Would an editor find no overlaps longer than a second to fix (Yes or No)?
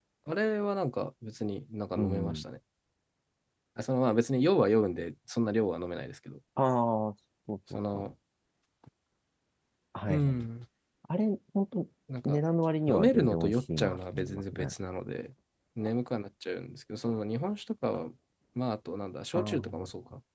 No